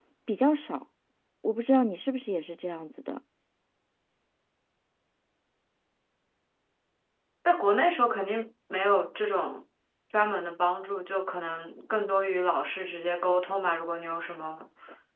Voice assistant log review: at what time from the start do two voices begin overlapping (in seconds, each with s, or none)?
none